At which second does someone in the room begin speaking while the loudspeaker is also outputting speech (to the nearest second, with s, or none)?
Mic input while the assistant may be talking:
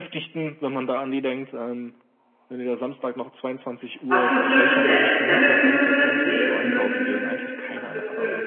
4 s